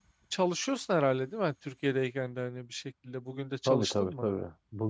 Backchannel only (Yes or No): No